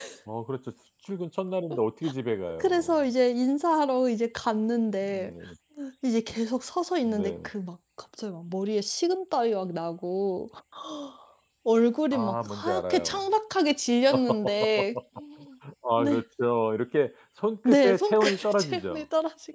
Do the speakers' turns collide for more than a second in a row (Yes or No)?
Yes